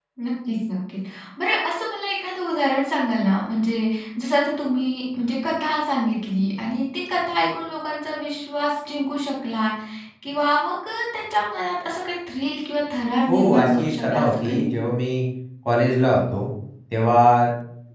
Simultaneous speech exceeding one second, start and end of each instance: 13.3-14.7

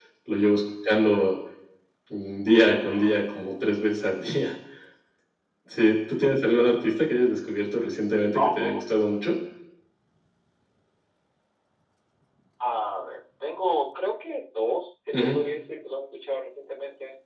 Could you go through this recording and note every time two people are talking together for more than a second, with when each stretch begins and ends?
none

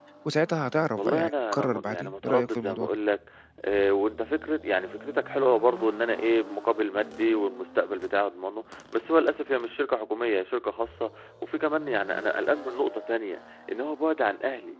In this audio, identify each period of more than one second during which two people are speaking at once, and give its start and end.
1.0-3.0

